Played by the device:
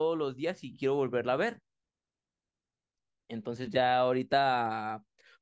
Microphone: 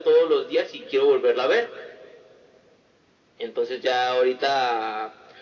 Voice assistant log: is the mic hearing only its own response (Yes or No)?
Yes